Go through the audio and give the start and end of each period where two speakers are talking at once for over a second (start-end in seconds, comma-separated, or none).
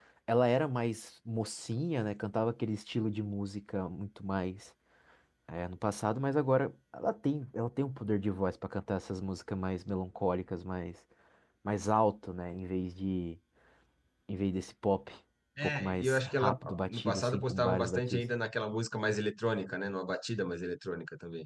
15.6-18.2